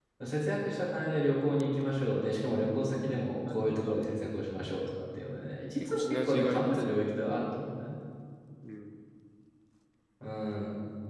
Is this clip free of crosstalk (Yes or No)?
No